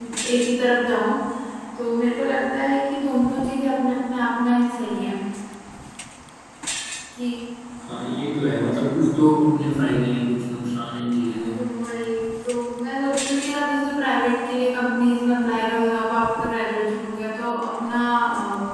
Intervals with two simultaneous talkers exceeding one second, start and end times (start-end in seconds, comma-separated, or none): none